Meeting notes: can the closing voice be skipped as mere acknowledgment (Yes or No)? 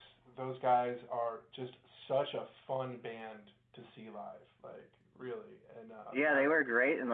No